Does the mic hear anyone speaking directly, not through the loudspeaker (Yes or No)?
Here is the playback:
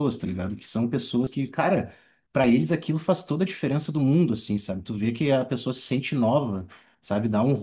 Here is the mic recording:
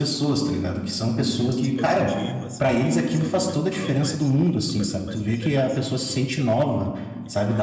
Yes